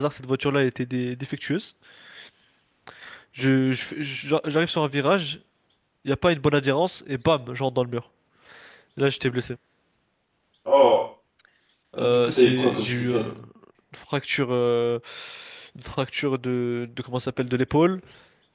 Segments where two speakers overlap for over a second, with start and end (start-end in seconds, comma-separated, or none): 12.0-13.2